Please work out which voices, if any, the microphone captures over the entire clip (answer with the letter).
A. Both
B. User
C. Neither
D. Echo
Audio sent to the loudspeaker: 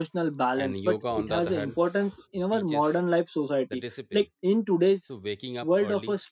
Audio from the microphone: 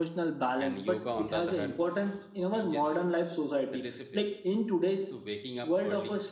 D